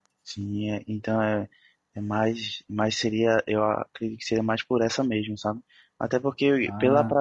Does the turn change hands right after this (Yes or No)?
No